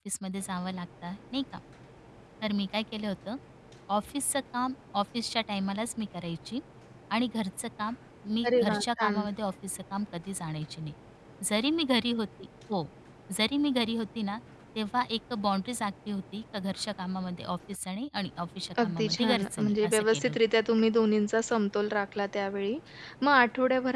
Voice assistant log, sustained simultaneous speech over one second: present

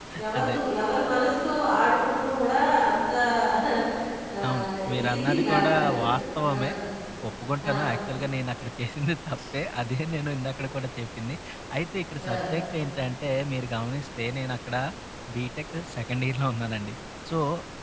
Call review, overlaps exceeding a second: present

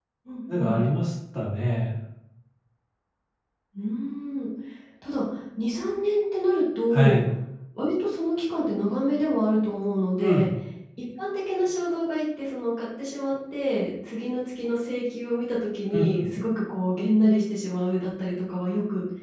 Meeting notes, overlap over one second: none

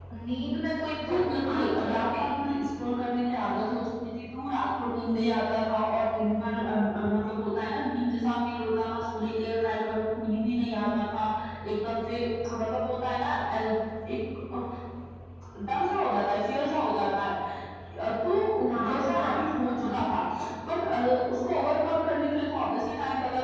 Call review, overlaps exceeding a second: present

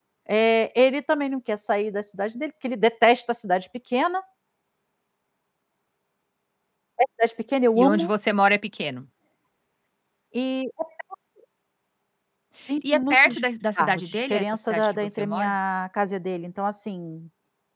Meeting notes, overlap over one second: present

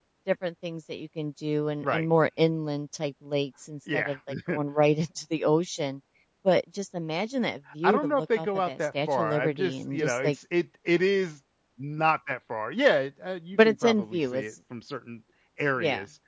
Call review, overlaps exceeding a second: present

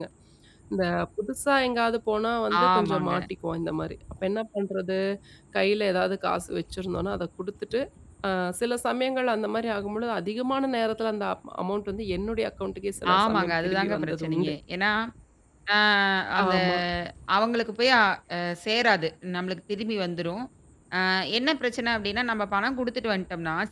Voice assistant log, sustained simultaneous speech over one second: present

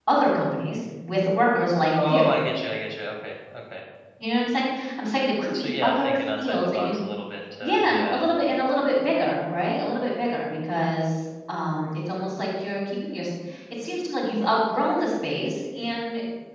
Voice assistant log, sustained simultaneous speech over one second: present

